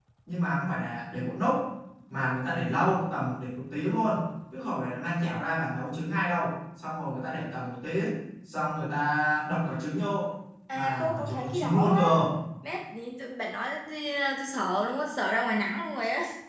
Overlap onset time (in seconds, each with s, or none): 10.7 s